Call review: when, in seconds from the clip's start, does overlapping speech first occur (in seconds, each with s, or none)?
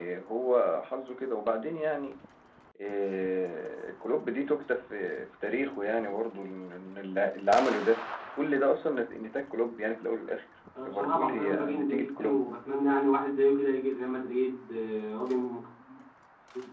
10.8 s